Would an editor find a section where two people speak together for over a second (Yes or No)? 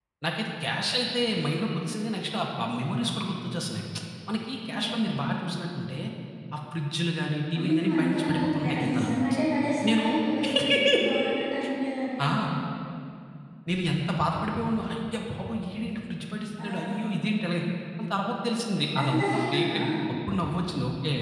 Yes